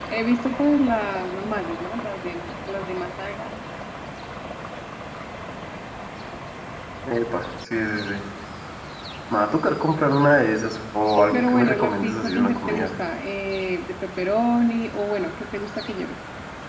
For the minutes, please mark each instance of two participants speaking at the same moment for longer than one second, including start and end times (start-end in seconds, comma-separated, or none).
11.3-12.9